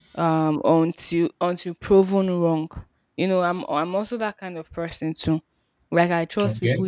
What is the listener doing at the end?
listening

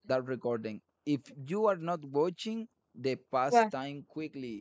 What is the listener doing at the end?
listening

